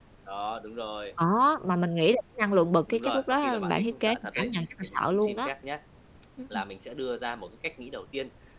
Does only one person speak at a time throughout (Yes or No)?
No